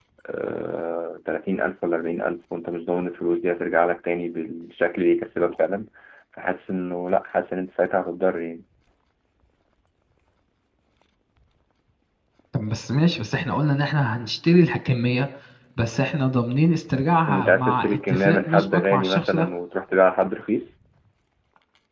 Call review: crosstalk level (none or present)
present